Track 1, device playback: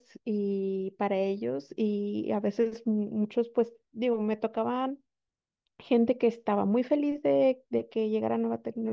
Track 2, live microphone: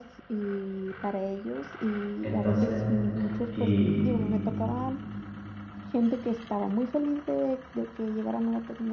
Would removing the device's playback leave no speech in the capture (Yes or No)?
No